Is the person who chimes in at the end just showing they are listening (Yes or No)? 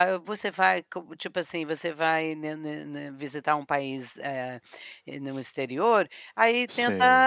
Yes